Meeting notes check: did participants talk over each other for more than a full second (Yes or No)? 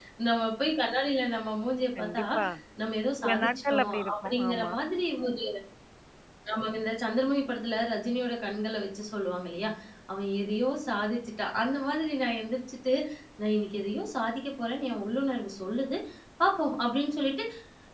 Yes